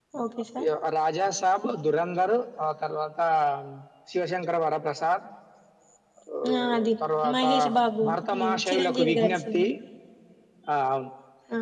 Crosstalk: present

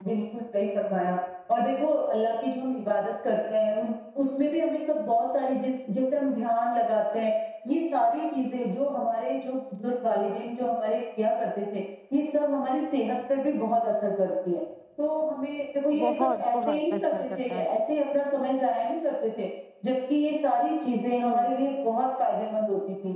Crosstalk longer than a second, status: present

